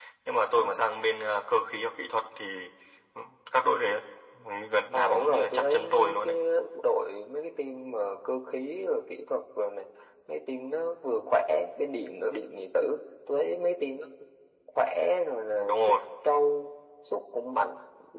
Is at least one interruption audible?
Yes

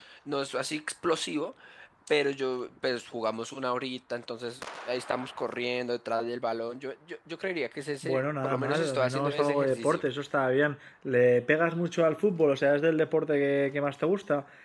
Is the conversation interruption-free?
No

